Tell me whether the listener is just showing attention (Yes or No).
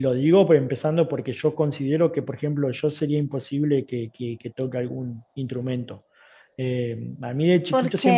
Yes